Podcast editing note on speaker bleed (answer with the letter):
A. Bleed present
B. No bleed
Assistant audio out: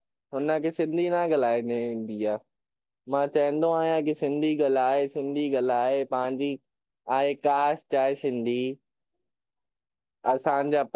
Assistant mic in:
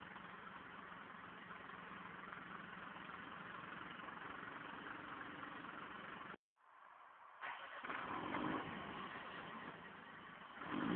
B